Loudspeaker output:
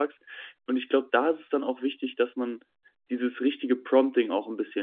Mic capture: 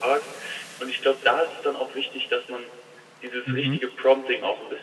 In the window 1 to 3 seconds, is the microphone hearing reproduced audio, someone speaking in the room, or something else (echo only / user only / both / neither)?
echo only